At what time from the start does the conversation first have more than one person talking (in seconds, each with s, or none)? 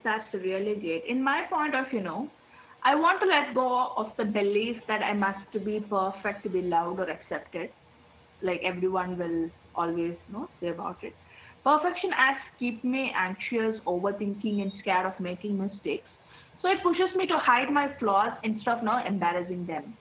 none